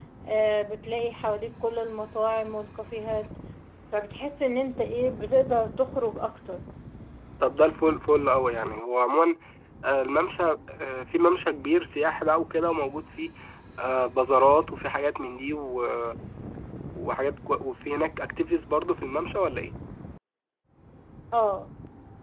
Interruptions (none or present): none